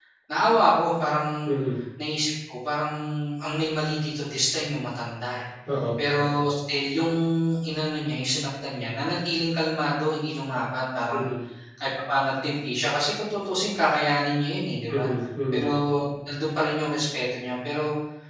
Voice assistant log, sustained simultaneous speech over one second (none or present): none